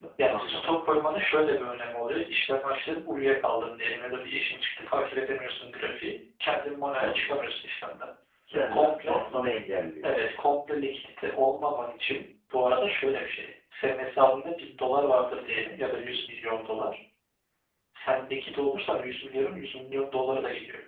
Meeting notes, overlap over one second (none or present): none